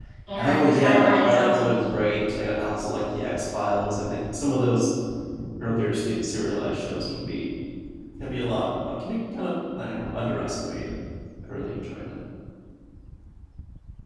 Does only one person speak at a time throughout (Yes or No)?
No